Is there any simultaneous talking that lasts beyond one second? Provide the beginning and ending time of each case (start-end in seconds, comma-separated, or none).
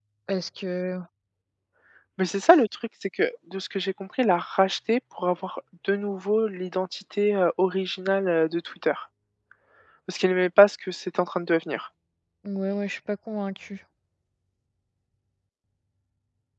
none